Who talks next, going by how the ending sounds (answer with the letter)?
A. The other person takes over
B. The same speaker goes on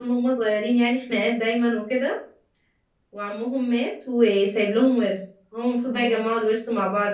B